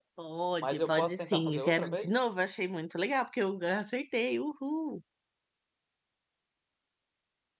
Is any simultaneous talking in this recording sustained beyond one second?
Yes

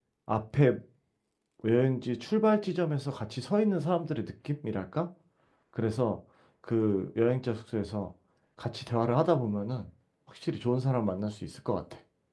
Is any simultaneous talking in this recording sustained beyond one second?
No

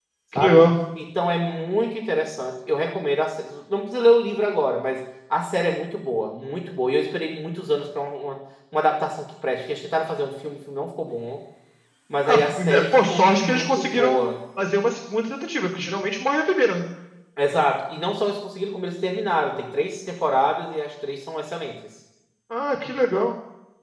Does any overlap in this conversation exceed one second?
Yes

